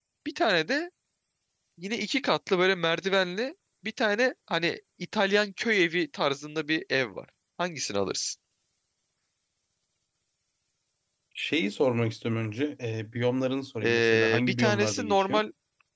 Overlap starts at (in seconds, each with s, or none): 13.8 s